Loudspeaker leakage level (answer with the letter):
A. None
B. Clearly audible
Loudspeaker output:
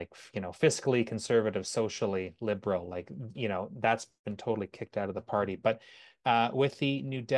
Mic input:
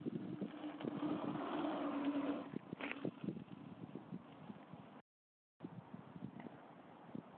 A